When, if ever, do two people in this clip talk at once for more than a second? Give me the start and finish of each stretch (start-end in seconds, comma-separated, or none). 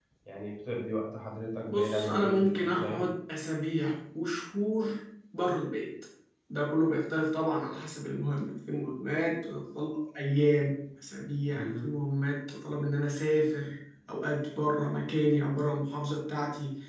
1.7-3.0